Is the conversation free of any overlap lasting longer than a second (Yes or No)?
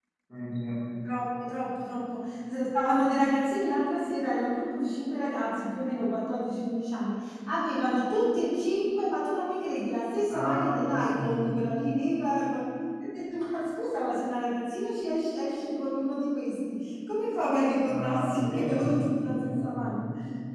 No